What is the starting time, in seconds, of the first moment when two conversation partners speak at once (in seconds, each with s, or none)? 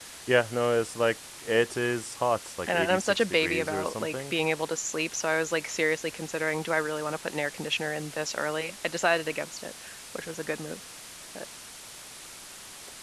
2.7 s